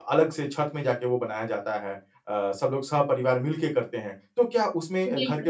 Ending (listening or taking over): listening